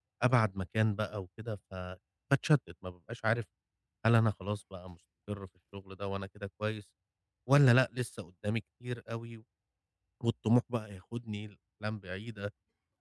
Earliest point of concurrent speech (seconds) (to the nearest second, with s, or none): none